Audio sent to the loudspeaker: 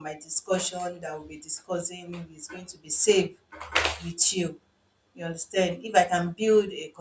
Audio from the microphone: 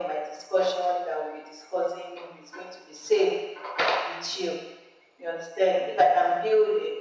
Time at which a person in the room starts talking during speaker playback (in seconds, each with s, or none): none